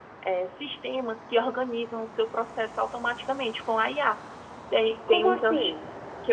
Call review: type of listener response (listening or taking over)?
listening